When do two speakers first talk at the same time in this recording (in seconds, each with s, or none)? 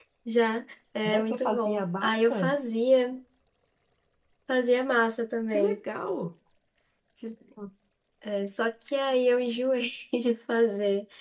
1.1 s